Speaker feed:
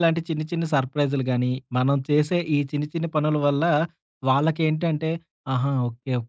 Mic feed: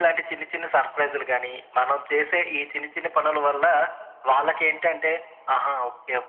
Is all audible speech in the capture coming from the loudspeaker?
Yes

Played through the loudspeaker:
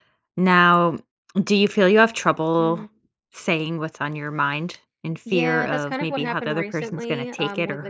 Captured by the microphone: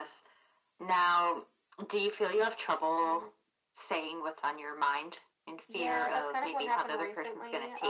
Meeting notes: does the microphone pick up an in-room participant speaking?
No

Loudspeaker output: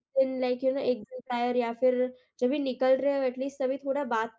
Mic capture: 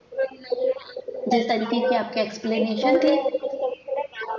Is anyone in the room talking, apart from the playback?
Yes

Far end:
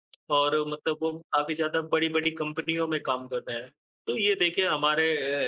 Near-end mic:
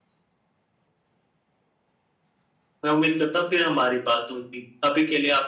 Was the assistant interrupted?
Yes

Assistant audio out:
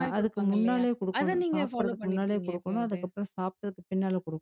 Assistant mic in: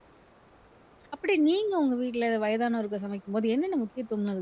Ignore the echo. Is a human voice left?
Yes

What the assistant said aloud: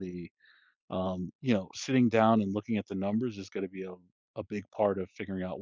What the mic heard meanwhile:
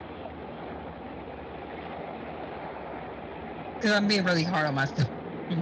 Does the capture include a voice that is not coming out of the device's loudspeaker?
Yes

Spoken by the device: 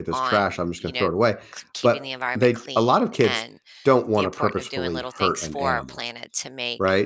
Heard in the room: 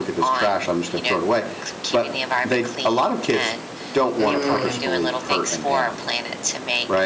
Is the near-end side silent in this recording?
No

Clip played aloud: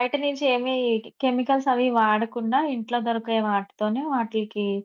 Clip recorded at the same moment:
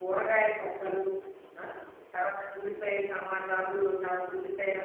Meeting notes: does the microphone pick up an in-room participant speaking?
Yes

